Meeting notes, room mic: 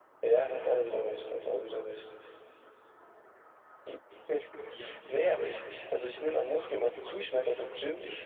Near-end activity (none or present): present